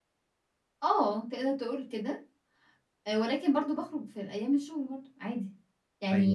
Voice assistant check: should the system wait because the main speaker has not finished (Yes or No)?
No